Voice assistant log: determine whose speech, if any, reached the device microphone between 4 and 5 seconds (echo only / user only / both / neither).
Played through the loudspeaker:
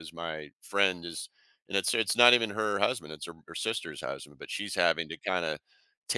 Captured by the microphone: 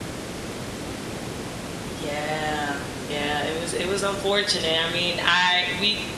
user only